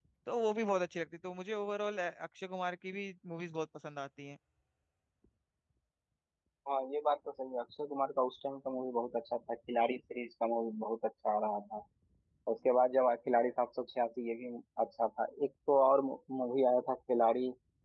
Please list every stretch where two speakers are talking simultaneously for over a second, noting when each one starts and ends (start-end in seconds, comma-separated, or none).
none